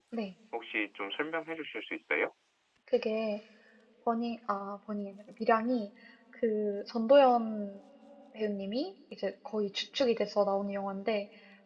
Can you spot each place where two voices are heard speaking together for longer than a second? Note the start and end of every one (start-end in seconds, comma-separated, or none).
none